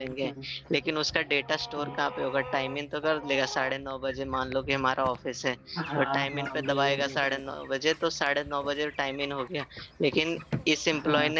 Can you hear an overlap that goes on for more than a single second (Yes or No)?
Yes